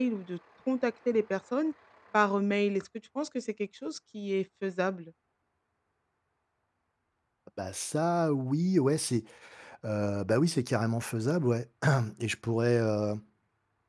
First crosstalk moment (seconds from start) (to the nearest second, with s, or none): none